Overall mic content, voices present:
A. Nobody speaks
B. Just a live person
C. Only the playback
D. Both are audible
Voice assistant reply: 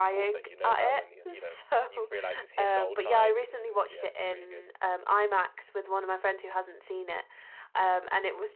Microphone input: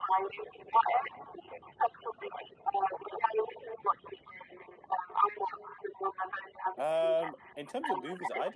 D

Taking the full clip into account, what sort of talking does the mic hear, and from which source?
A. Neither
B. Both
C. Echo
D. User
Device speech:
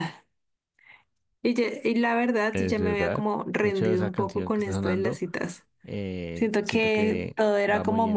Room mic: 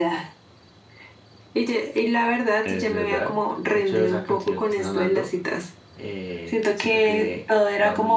C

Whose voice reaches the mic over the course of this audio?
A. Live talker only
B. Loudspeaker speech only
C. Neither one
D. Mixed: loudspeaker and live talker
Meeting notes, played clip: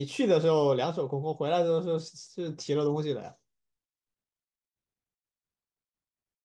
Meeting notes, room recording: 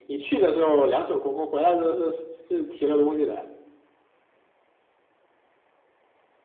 B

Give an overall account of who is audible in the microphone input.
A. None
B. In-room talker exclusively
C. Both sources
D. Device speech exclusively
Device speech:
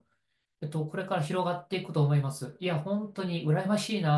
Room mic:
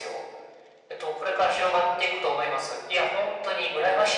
D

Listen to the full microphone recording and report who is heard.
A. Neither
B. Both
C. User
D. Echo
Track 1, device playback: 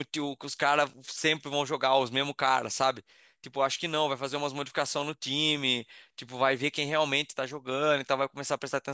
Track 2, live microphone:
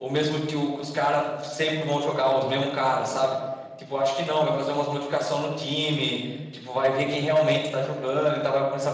D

